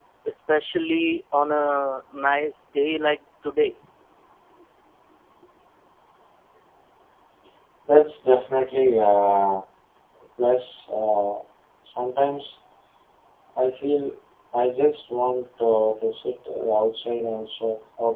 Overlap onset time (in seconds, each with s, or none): none